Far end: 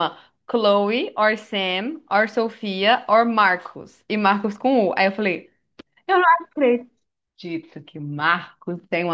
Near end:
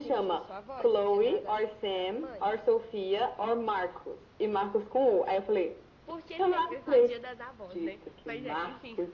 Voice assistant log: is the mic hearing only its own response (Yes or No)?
No